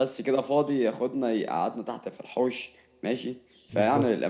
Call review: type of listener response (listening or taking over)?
listening